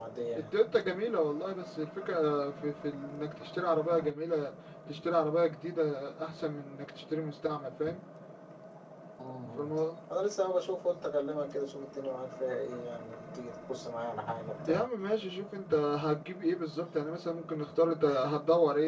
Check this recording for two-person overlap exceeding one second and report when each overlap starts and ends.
none

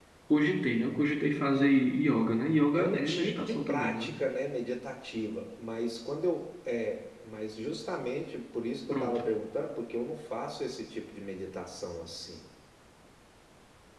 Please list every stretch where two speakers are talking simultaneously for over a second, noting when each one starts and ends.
2.7-4.2

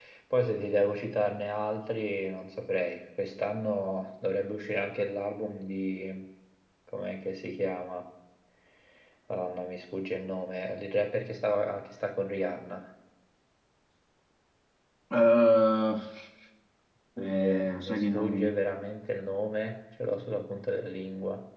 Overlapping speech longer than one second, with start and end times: 17.2-18.5

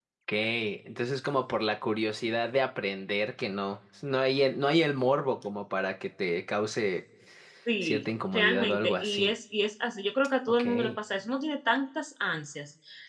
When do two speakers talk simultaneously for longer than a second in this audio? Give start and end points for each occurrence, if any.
7.8-9.3

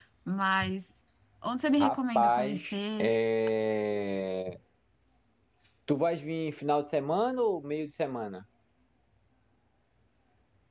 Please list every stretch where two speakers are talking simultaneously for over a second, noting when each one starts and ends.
1.8-3.1

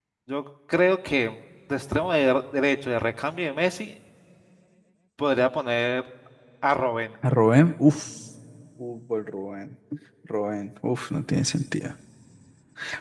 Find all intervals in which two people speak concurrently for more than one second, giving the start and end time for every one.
none

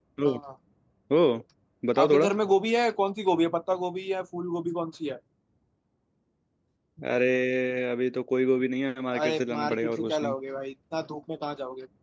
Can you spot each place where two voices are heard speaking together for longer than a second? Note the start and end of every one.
9.1-10.3

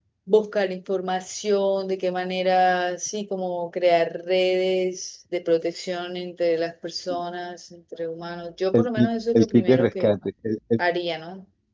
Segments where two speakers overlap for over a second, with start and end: 8.8-10.1

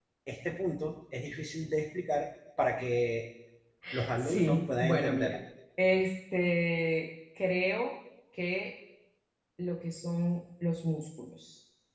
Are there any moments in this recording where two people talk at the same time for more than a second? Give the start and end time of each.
4.2-5.4

